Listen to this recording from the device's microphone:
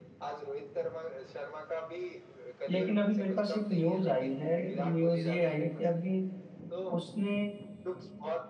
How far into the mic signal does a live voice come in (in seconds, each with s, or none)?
2.7 s